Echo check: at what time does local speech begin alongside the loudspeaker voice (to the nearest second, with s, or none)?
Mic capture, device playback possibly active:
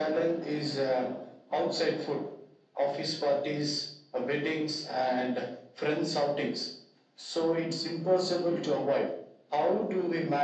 none